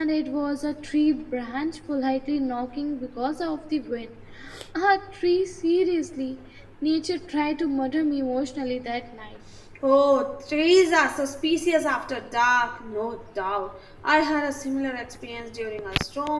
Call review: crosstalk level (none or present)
none